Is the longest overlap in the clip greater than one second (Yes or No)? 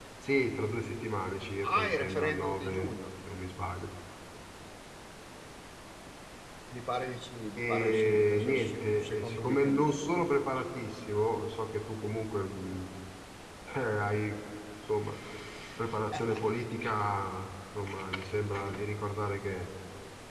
Yes